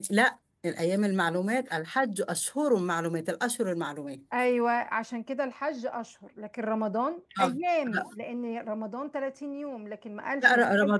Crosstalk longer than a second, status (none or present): none